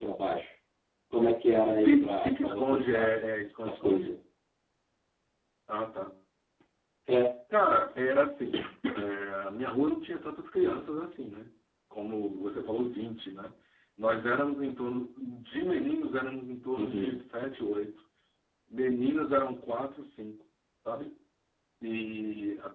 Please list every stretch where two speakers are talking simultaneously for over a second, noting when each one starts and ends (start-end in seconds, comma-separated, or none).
1.8-3.1